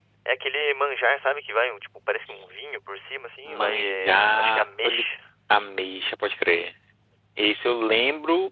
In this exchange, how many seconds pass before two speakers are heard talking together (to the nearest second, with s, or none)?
3 s